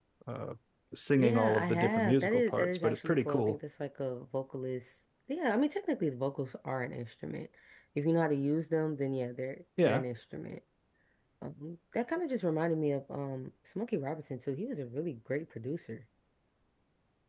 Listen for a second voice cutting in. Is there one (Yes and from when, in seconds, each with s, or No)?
Yes, from 1.2 s